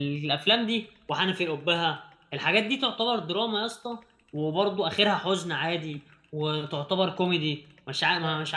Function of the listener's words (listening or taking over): taking over